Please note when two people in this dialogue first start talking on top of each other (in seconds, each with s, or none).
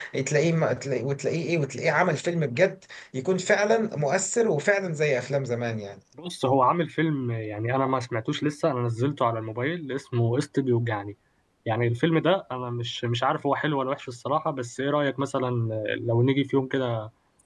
none